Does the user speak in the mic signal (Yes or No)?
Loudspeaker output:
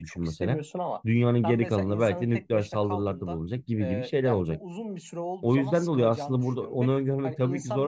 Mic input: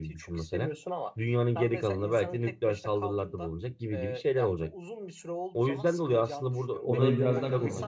Yes